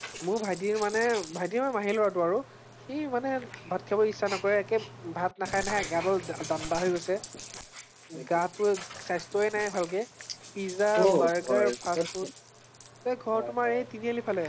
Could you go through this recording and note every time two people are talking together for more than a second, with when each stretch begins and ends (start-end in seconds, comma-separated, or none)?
11.0-12.3